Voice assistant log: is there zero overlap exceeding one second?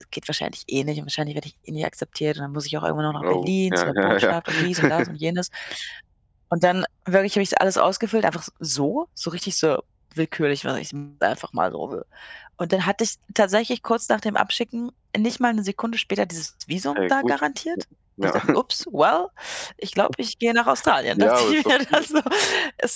No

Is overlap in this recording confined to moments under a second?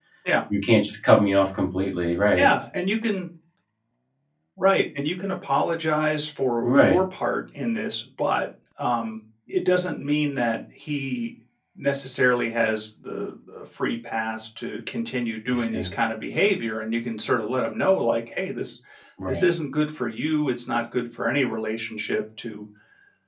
Yes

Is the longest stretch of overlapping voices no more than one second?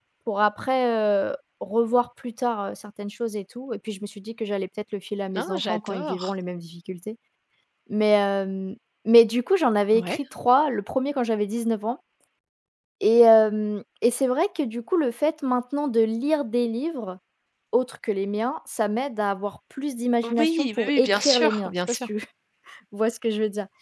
No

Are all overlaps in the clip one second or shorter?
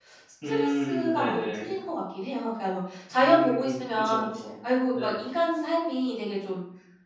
No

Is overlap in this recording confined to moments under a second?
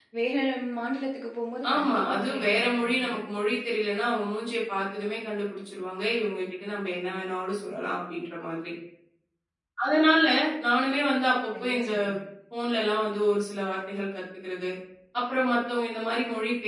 No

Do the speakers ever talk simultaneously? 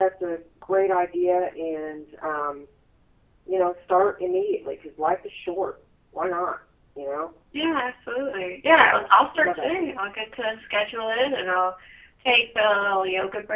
Yes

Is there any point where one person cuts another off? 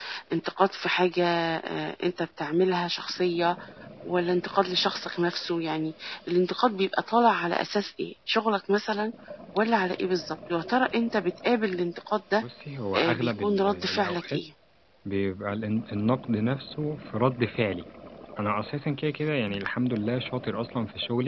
Yes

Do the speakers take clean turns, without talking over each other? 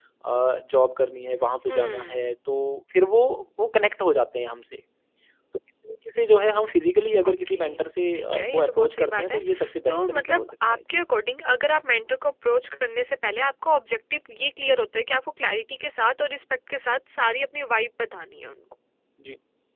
No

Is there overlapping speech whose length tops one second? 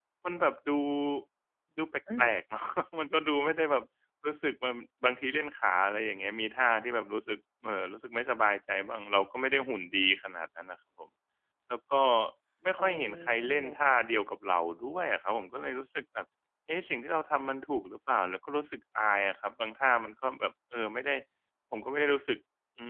Yes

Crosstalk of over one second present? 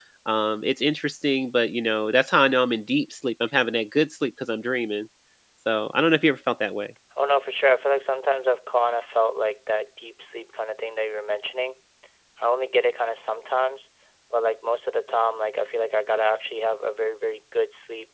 No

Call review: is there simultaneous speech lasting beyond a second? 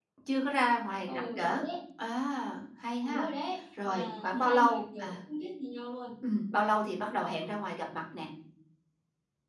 Yes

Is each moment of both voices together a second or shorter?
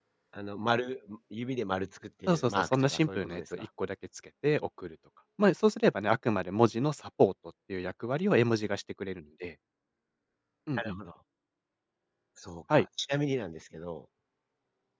No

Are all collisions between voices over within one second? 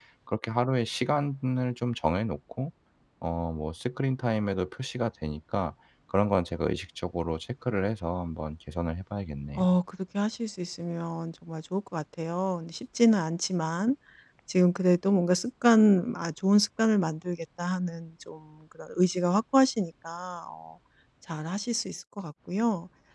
Yes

